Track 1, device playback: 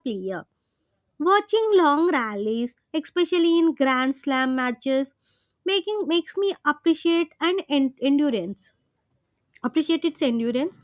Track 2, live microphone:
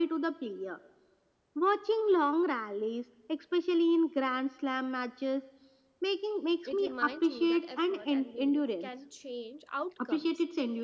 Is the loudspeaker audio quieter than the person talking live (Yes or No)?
No